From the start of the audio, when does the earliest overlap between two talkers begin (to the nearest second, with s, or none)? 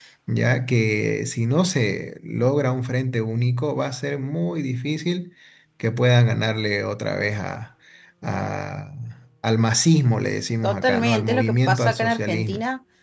11 s